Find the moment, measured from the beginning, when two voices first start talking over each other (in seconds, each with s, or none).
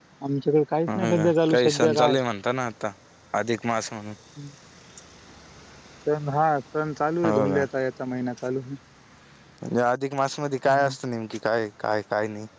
0.9 s